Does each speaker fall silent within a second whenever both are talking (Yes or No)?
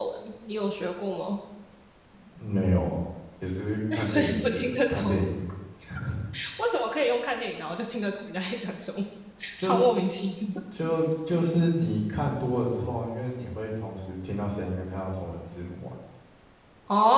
No